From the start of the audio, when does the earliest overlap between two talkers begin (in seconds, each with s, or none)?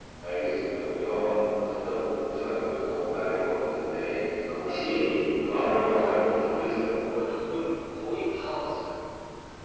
none